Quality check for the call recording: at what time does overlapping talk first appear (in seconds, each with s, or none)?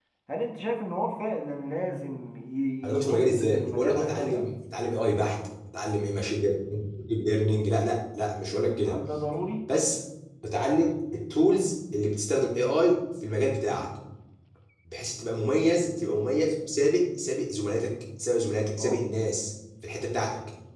2.8 s